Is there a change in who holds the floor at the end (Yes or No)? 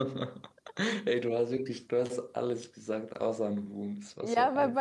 Yes